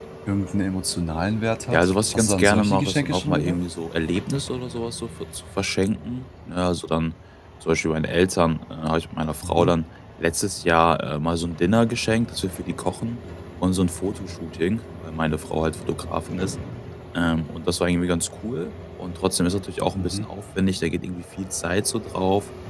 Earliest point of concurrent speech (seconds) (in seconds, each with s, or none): 1.7 s